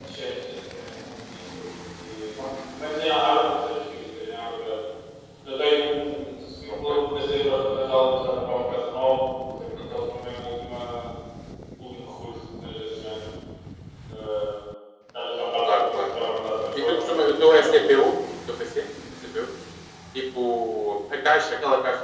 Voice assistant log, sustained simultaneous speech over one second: present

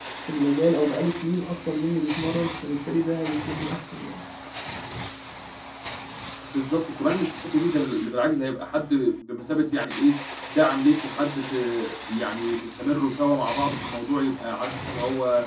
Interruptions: none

